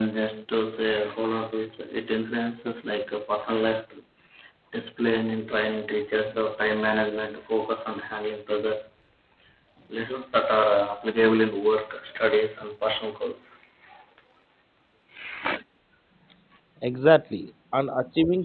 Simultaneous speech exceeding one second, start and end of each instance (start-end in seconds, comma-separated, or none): none